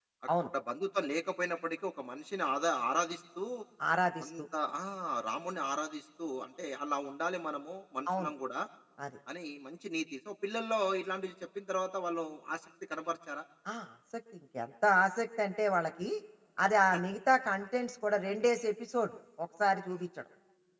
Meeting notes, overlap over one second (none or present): none